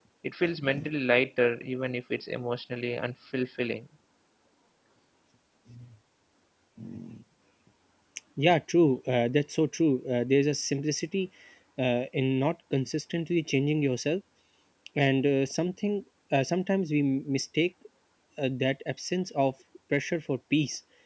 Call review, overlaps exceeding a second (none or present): none